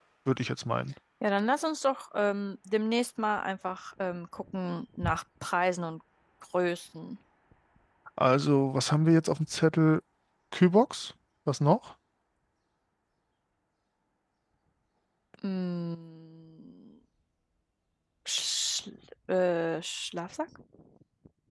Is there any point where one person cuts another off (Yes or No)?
No